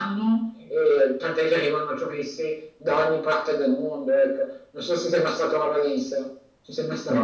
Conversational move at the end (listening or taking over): taking over